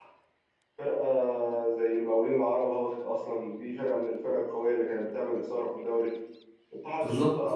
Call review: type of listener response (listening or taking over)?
listening